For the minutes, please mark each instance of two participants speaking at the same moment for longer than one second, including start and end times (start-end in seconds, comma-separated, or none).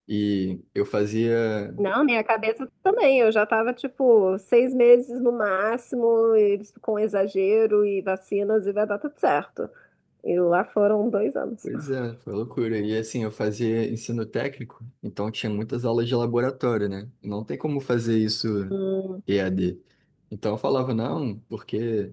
none